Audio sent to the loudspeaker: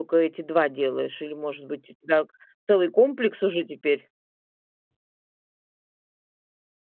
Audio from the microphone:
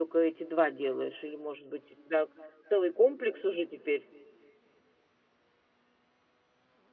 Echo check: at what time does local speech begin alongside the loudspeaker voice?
none

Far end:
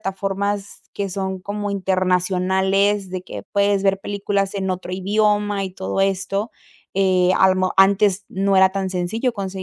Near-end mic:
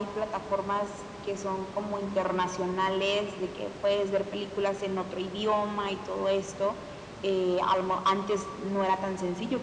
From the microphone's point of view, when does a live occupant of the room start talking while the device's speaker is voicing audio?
none

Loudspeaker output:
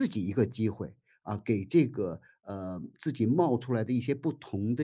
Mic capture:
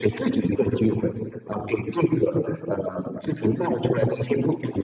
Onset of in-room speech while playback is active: none

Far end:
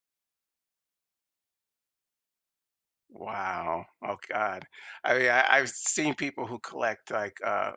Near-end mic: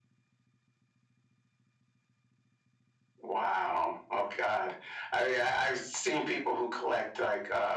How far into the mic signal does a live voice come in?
none

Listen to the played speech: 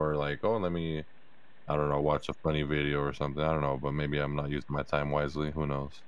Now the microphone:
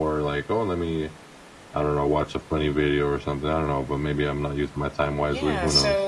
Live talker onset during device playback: 5.2 s

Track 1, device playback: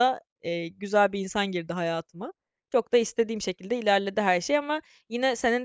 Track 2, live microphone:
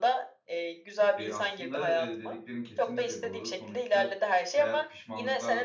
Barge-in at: 1.2 s

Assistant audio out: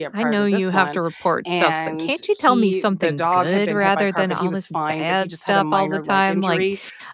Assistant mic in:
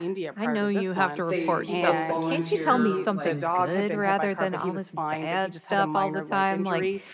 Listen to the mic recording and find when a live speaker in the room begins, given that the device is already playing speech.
1.2 s

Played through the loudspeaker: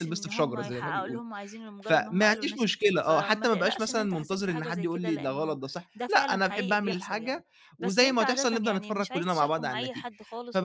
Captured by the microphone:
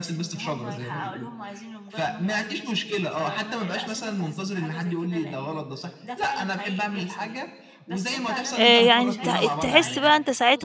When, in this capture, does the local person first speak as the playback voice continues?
8.6 s

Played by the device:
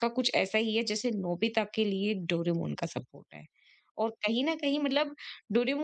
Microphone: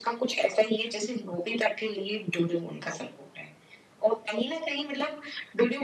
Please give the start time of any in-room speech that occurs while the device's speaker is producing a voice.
none

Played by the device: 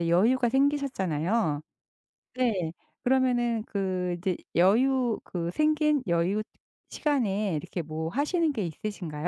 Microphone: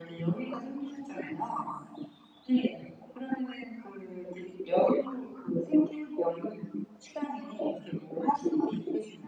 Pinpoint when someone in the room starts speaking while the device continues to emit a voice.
none

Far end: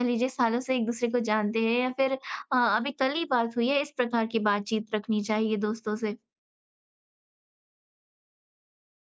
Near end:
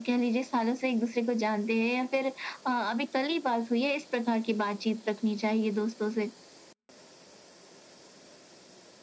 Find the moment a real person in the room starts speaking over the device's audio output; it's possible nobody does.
none

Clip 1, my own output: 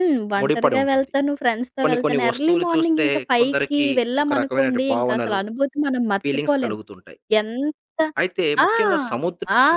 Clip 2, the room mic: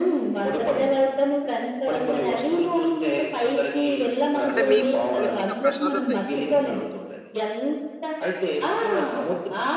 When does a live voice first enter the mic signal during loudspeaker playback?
4.5 s

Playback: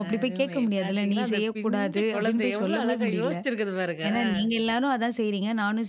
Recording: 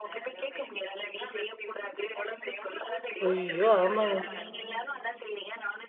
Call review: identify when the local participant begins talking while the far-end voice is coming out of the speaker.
3.2 s

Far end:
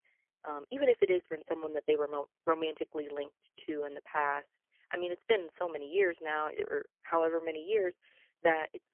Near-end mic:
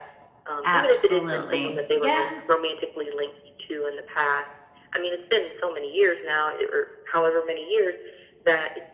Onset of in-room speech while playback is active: 0.6 s

